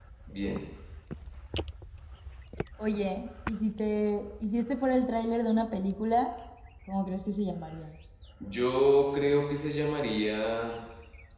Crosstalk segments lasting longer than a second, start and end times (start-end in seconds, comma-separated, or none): none